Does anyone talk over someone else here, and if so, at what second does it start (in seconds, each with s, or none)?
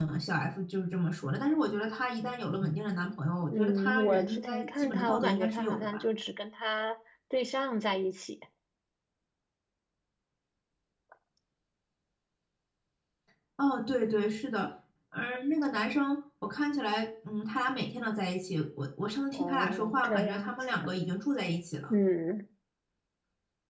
3.4 s